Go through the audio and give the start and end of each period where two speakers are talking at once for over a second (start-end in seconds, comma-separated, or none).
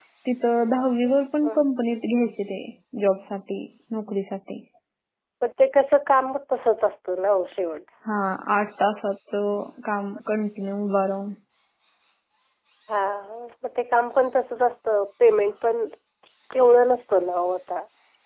none